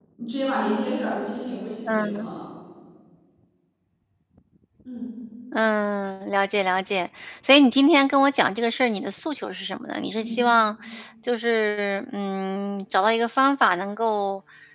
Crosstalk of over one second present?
No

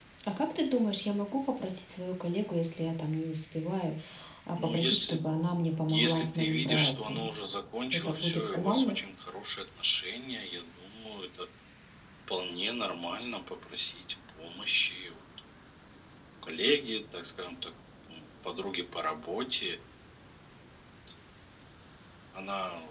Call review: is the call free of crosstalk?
No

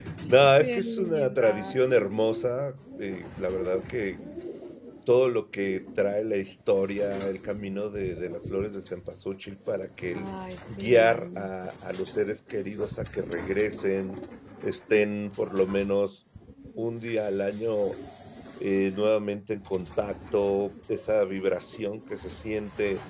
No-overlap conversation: No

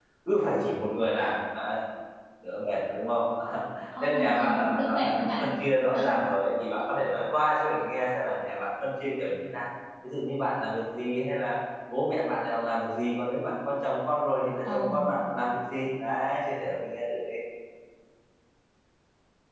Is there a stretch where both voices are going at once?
Yes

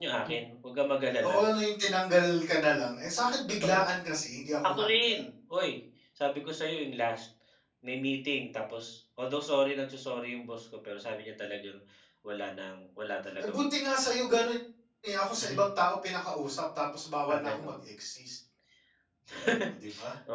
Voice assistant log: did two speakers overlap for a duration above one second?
No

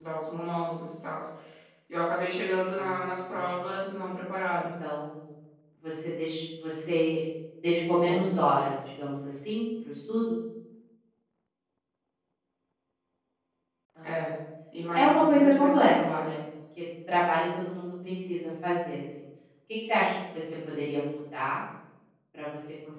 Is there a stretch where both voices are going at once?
Yes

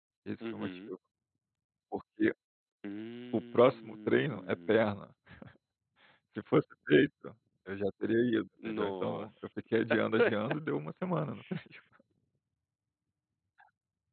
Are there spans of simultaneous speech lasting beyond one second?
Yes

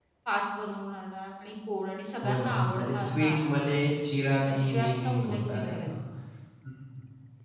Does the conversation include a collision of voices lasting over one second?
Yes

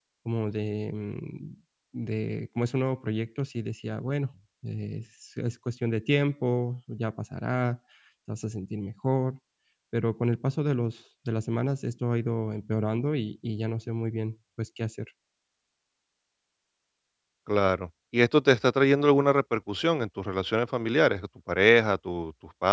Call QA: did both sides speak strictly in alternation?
Yes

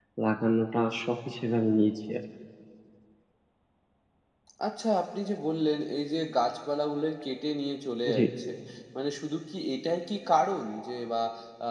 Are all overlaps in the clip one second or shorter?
Yes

